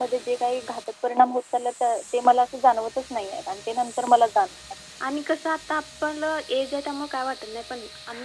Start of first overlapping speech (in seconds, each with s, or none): none